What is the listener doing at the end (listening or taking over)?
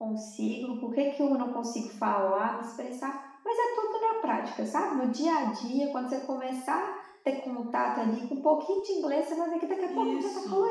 taking over